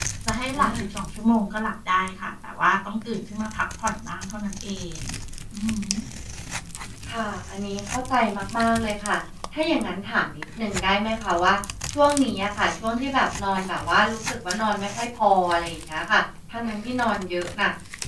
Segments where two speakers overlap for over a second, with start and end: none

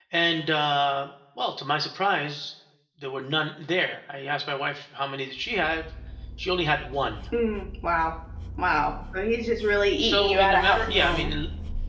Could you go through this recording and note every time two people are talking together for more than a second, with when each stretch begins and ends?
10.0-11.3

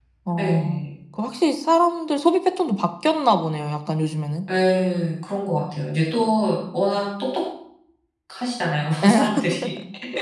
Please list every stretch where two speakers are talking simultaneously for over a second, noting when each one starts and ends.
none

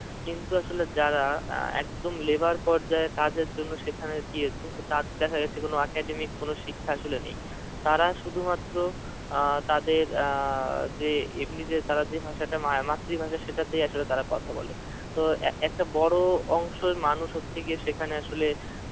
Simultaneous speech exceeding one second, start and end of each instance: none

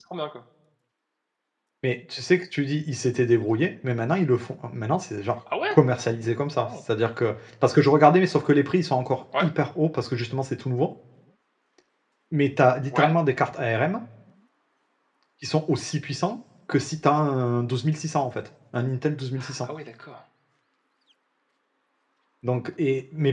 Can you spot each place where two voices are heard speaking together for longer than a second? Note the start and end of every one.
none

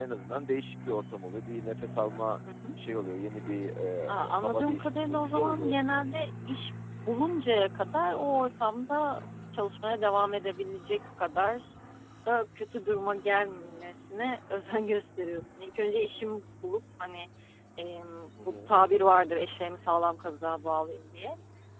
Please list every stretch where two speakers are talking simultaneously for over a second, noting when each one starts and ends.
4.1-6.2

